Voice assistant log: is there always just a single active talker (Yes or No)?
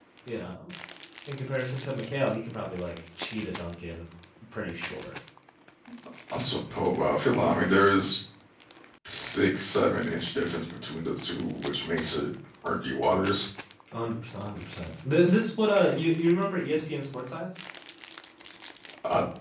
Yes